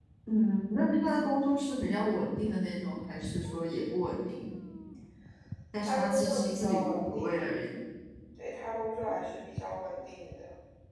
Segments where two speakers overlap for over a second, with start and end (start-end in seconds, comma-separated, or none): 5.8-7.3